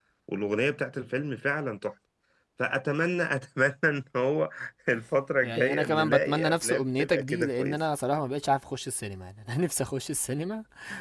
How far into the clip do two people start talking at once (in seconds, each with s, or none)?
5.4 s